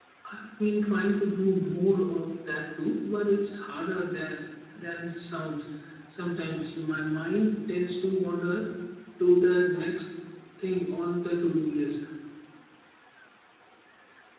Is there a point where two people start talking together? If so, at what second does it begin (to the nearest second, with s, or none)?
none